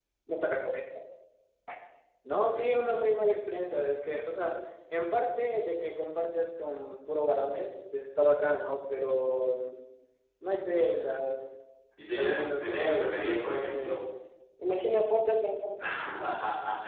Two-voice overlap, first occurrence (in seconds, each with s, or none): 12.1 s